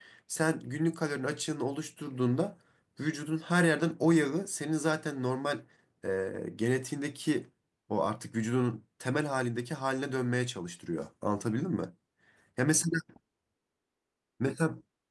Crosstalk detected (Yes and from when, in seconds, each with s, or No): No